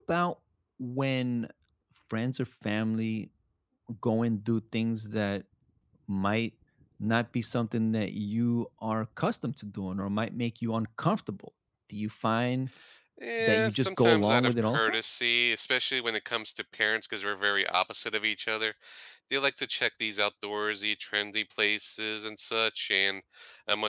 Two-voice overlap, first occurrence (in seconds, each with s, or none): 13.4 s